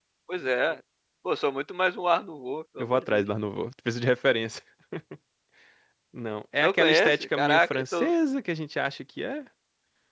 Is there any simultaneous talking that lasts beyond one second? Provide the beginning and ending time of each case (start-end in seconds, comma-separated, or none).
6.6-8.1